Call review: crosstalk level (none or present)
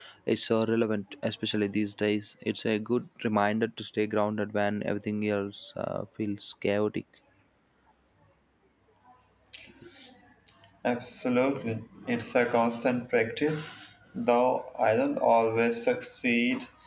none